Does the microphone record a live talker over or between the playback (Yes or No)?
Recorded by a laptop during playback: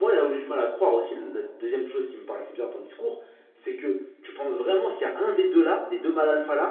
Yes